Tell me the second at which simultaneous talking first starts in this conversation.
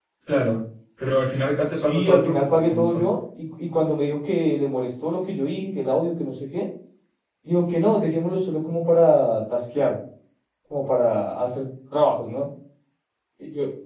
1.7 s

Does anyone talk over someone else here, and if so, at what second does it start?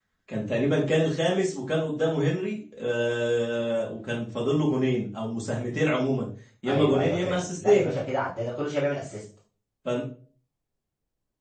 6.6 s

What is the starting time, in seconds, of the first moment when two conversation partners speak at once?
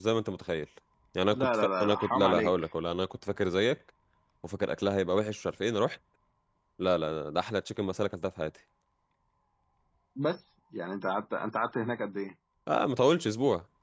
1.3 s

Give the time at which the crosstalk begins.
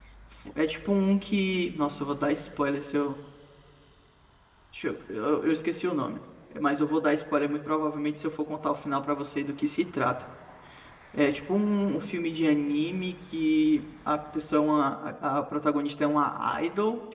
none

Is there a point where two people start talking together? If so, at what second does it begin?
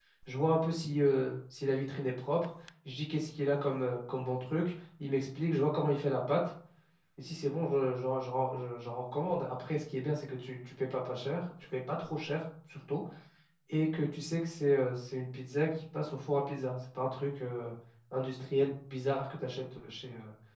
none

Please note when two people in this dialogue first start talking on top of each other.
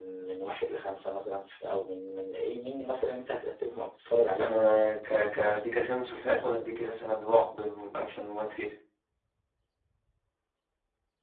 4.3 s

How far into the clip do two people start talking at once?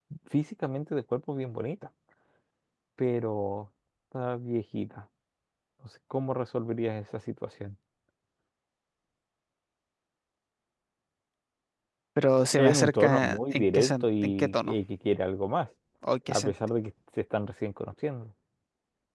12.6 s

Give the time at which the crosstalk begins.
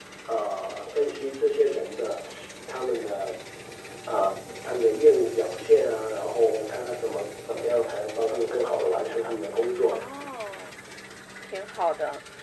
none

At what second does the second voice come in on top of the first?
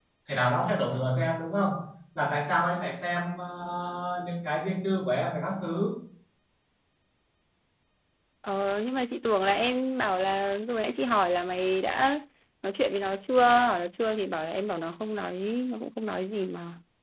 none

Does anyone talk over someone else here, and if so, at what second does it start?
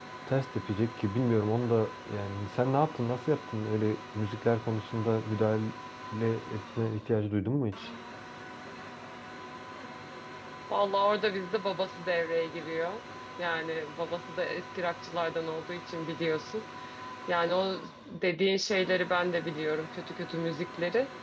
none

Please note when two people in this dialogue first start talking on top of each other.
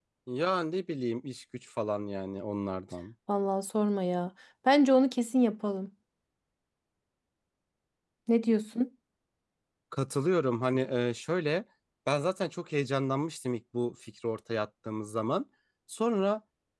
none

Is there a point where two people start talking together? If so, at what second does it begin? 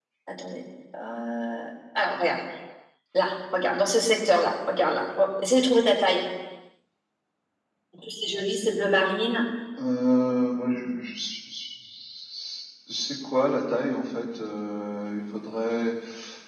none

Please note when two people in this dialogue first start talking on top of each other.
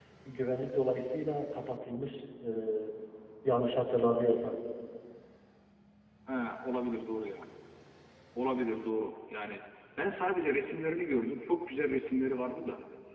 none

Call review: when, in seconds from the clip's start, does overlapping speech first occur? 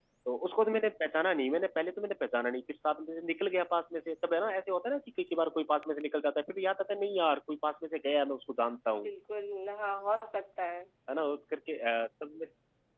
none

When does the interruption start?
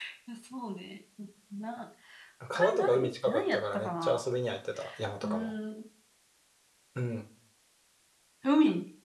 2.5 s

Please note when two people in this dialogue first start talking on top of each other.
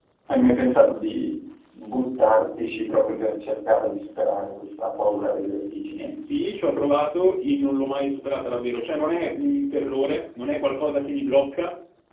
none

